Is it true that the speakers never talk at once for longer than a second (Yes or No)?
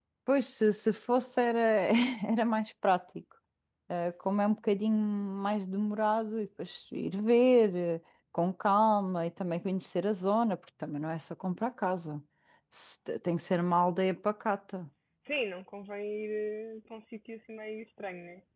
Yes